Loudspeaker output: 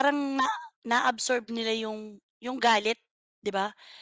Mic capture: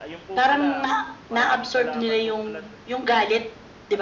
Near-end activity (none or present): present